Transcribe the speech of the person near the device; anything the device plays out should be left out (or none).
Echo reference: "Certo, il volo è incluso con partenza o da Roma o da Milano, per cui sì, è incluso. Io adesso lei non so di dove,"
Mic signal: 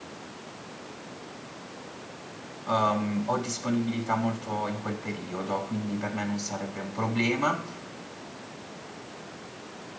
ehm, ho disponibilità molto in quel periodo, quindi per me non sarebbe un problema.